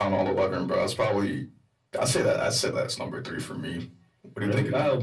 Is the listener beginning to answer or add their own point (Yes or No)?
Yes